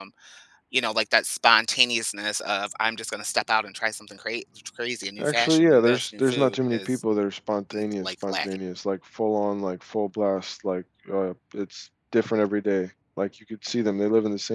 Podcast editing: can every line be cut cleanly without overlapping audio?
No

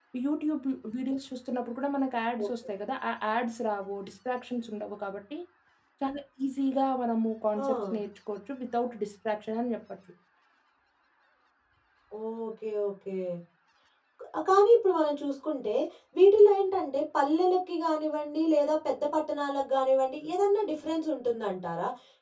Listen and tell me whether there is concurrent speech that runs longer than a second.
No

